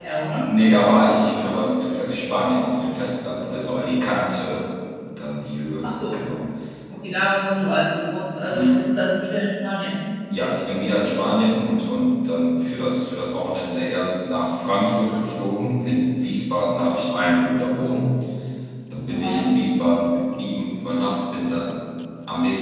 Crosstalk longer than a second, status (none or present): none